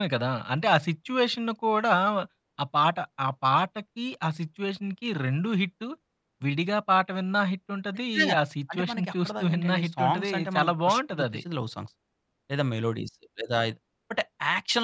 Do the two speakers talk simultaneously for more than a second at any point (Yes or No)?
Yes